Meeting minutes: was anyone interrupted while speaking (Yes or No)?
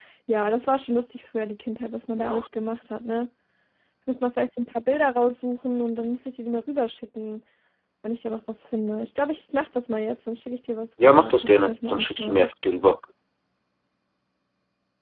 Yes